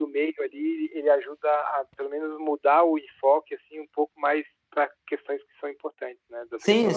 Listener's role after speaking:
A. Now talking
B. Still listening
A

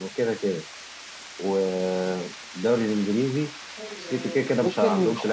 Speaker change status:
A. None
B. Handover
B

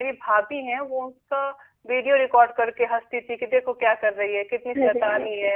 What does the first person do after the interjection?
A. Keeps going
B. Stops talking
A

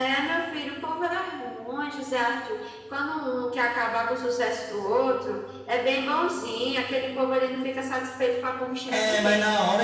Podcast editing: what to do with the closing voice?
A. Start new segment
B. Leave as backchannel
A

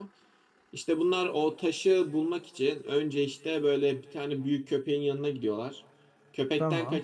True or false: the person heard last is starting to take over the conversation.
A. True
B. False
B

